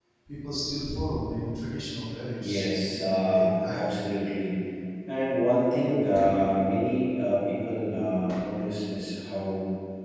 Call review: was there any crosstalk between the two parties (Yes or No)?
Yes